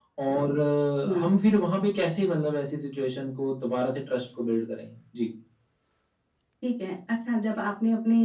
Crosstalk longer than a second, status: none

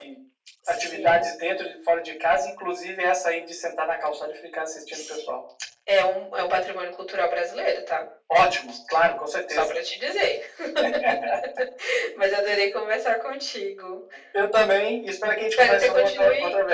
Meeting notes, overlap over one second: present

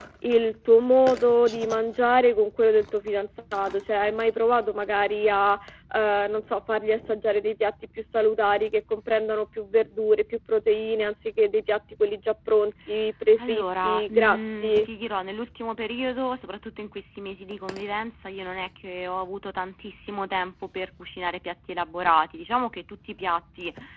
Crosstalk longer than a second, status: present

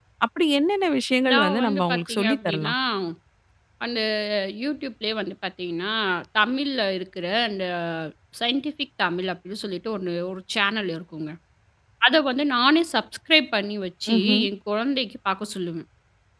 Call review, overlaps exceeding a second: present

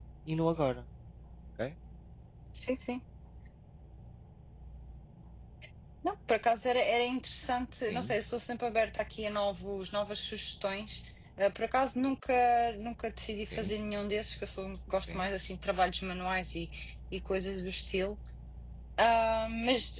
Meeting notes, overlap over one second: none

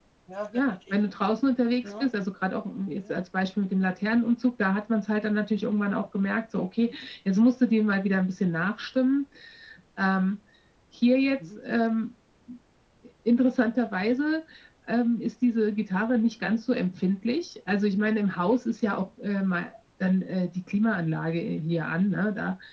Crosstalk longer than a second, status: none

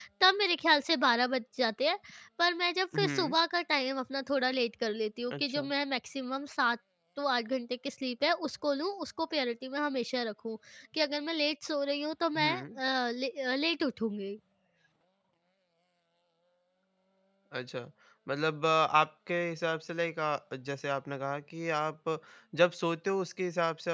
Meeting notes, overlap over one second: none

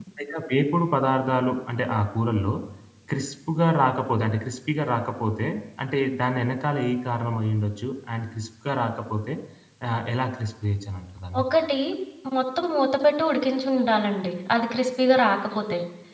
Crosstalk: none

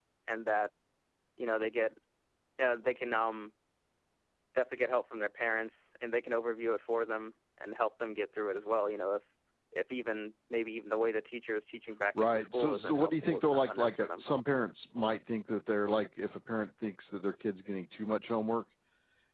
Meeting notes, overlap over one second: present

